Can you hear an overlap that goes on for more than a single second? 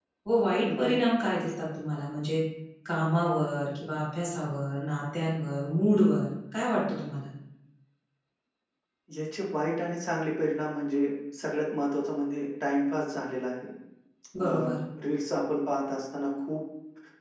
No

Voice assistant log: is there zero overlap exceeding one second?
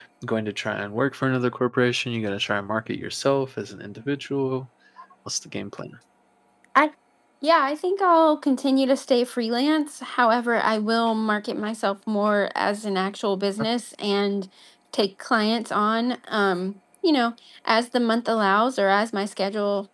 Yes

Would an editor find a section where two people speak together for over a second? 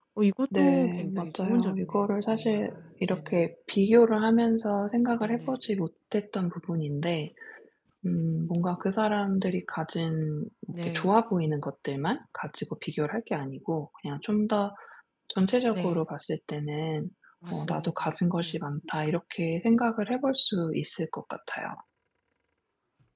Yes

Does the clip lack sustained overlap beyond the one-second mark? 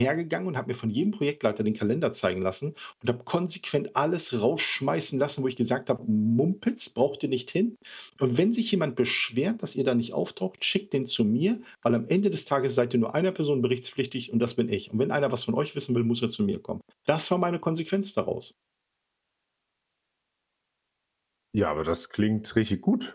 Yes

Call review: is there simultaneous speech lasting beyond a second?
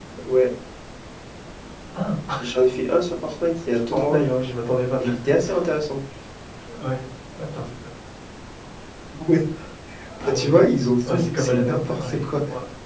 Yes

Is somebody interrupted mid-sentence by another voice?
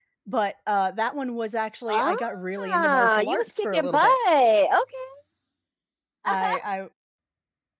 Yes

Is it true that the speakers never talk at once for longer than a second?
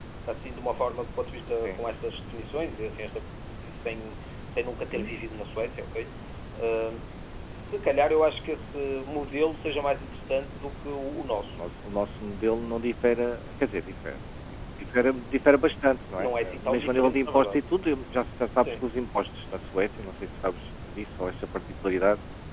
No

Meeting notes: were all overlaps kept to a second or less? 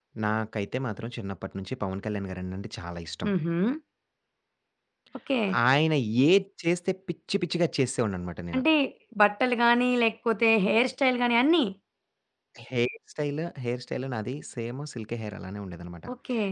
Yes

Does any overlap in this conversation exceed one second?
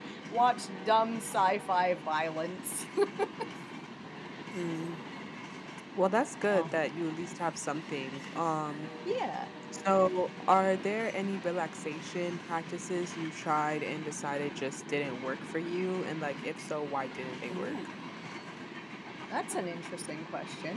No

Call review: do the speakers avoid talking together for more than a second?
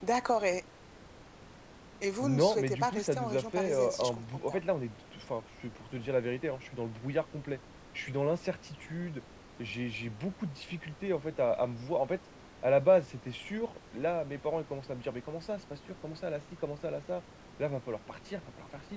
No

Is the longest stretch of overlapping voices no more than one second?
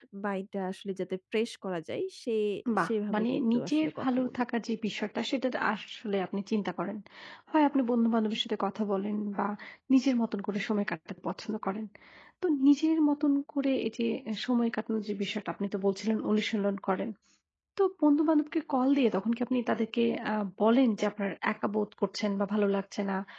No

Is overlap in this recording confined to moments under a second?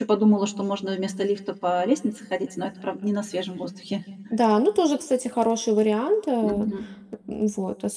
Yes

